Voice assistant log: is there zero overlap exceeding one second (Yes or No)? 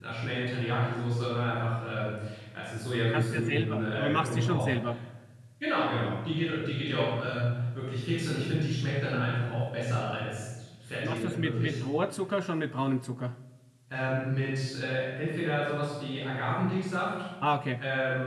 No